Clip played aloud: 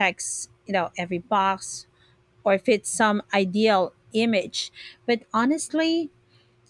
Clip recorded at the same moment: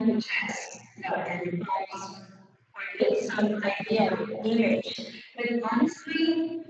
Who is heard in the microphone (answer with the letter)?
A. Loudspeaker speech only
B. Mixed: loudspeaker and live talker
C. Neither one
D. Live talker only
A